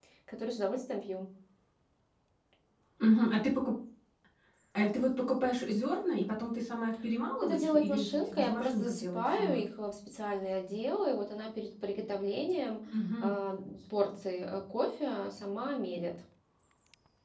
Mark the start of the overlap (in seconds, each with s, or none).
7.4 s